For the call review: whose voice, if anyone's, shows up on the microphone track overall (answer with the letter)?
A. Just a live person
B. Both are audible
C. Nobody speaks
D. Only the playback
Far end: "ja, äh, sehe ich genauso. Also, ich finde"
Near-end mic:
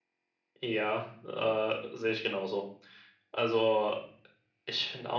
D